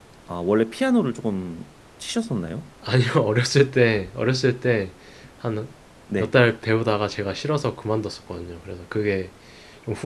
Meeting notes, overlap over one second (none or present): none